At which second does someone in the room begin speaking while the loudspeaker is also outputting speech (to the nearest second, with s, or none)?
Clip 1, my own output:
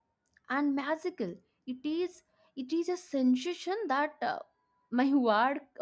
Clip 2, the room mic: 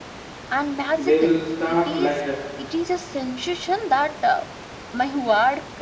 1 s